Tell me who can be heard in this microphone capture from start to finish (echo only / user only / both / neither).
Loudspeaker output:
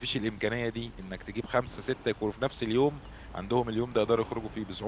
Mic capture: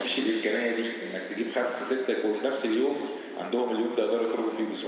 echo only